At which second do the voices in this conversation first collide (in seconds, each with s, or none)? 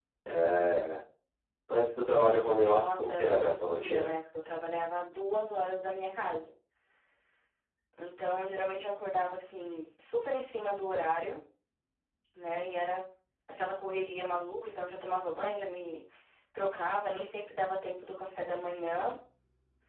2.7 s